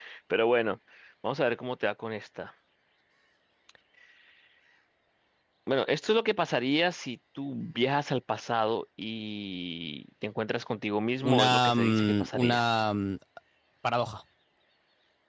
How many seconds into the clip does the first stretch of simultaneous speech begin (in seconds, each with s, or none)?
11.2 s